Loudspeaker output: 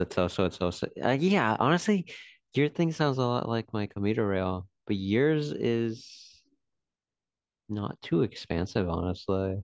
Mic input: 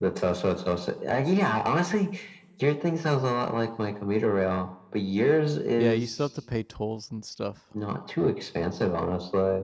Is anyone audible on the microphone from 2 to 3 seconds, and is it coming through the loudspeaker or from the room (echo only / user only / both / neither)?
echo only